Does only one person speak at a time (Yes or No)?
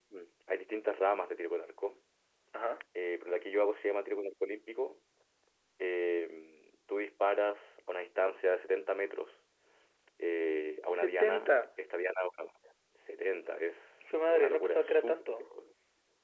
No